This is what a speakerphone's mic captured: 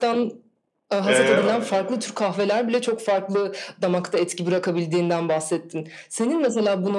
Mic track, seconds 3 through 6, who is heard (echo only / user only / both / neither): echo only